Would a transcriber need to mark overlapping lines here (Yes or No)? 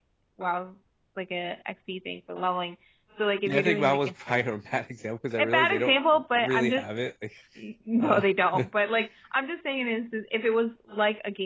Yes